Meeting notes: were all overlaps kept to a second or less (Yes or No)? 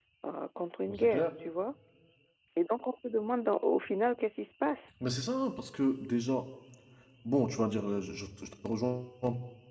Yes